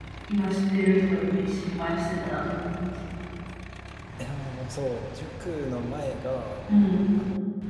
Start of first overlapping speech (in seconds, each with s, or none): none